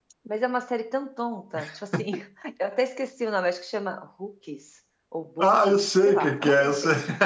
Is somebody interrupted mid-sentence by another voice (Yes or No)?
Yes